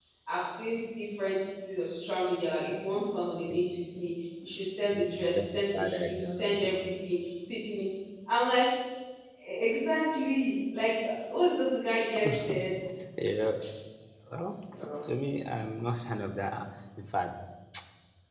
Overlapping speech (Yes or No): Yes